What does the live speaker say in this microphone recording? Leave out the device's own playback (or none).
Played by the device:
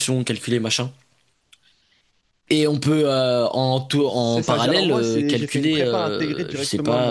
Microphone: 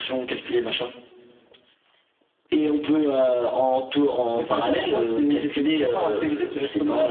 none